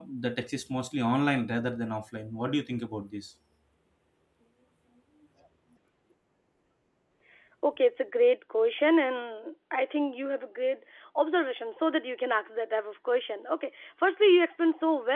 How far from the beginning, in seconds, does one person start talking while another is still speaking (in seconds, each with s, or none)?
none